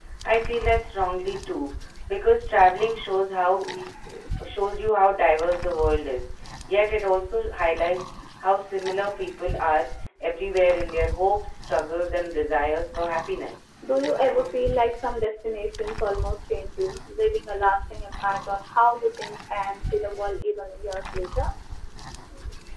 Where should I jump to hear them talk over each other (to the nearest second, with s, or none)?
none